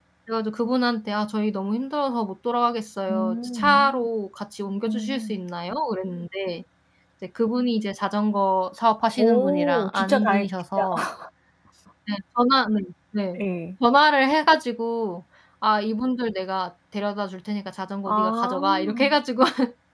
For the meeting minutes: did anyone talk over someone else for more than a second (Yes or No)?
Yes